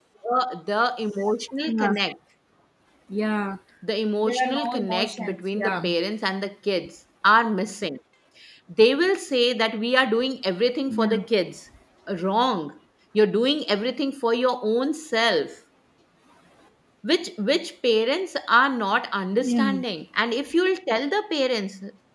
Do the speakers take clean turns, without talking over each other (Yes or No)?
No